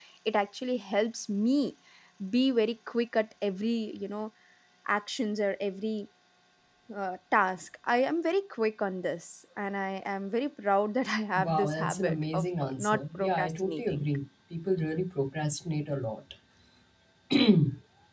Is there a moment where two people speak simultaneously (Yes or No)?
Yes